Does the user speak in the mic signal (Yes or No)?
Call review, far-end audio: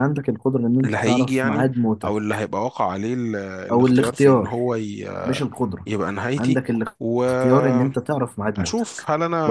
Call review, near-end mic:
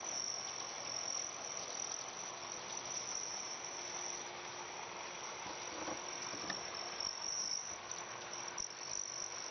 No